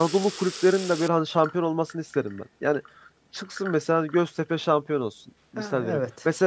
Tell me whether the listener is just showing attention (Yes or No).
Yes